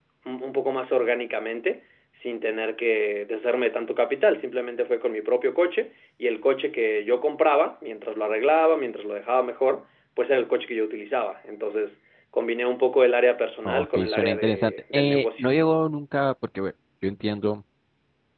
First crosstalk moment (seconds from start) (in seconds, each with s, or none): 13.7 s